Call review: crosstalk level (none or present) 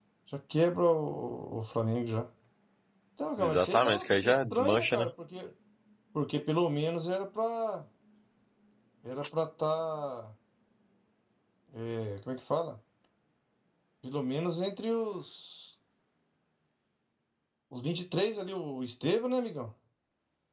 present